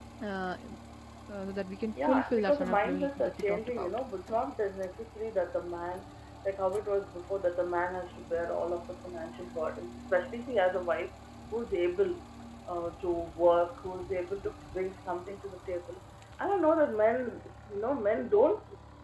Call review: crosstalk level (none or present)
present